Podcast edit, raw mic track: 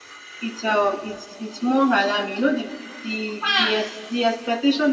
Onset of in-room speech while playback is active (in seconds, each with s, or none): none